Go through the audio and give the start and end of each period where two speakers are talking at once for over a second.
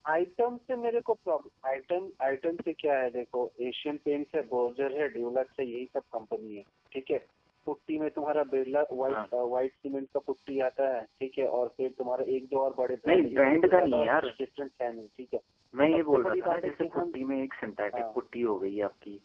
13.1-14.3, 15.9-17.2

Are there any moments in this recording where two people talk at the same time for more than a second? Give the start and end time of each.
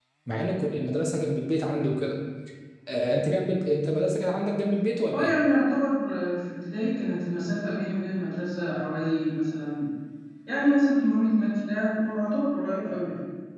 none

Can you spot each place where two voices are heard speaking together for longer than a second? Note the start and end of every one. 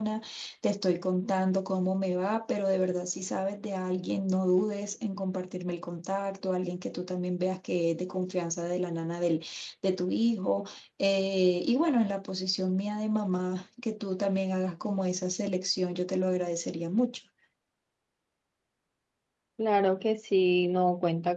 none

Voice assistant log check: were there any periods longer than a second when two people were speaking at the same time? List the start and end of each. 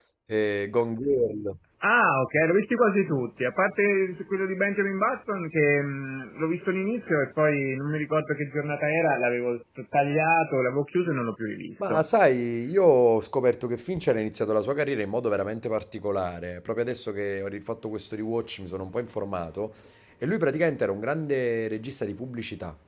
none

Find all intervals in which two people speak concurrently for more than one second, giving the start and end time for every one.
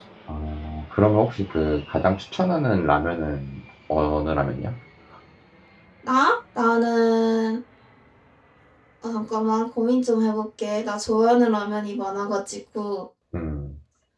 none

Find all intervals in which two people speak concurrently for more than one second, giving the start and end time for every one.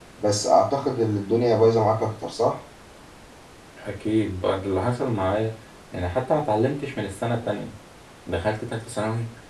none

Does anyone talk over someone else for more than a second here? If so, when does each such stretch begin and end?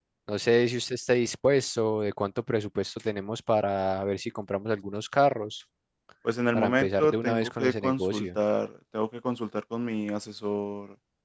6.5-8.3

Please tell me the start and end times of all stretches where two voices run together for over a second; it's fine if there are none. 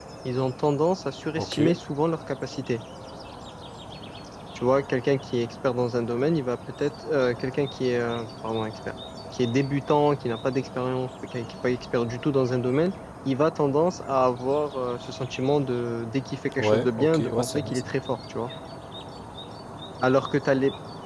16.6-17.9

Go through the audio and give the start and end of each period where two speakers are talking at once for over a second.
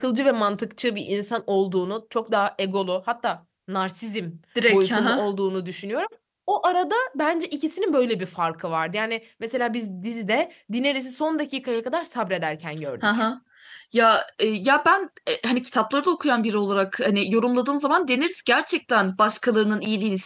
none

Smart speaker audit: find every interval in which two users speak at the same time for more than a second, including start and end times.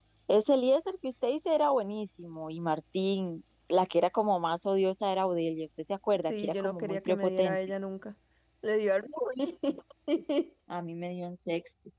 6.2-7.6

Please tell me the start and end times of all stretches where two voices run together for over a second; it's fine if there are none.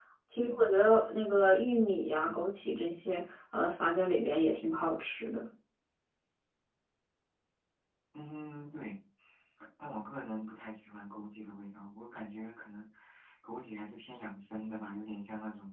none

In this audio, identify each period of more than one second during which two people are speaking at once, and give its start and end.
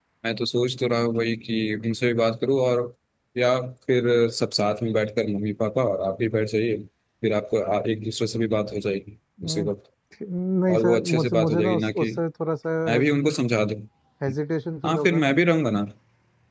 10.7-12.1

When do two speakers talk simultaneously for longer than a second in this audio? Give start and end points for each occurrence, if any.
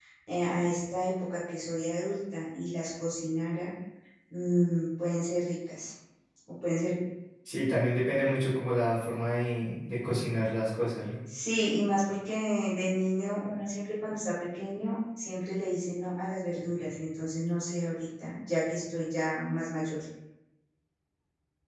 none

